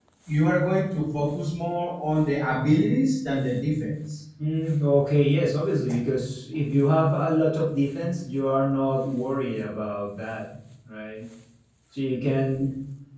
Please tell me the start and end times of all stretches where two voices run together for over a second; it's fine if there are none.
none

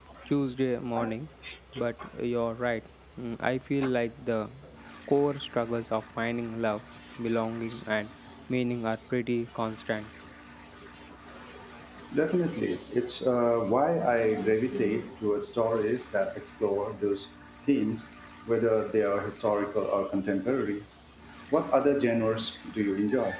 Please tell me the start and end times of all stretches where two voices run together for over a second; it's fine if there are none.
none

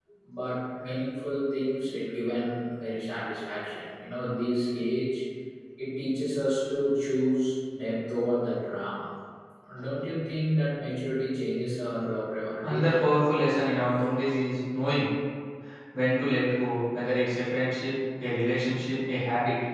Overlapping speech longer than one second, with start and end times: none

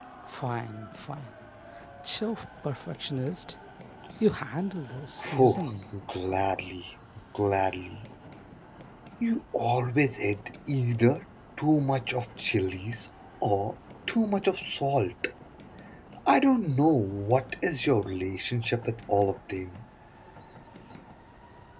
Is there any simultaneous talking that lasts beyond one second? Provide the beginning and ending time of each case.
none

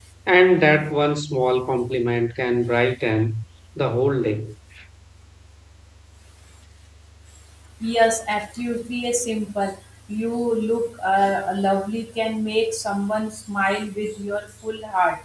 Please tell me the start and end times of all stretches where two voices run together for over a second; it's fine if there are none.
none

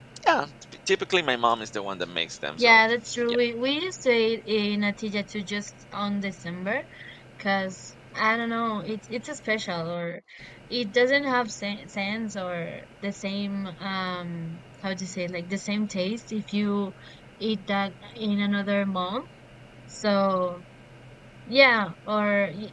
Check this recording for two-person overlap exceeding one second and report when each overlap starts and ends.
none

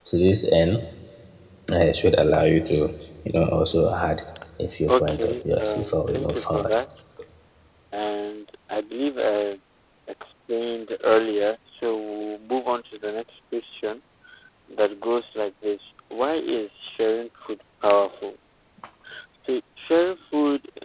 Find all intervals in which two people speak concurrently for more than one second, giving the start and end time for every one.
4.9-6.8

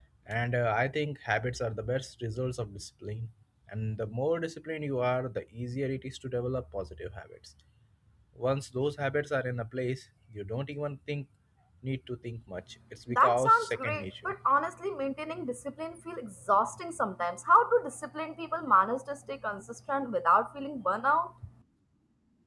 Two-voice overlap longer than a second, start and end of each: 13.1-14.3

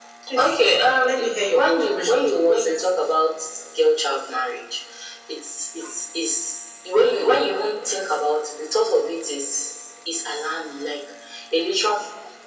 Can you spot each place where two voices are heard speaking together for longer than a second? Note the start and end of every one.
1.0-2.9

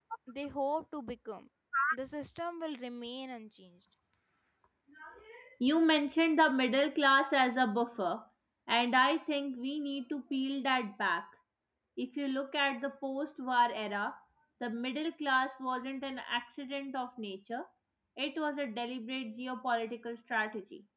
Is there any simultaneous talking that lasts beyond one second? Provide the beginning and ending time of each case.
none

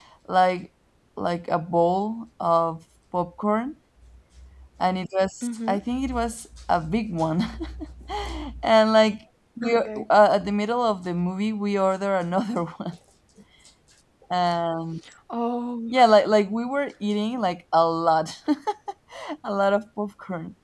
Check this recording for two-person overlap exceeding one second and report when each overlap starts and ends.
none

